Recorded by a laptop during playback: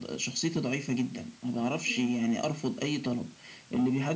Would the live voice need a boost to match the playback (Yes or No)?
Yes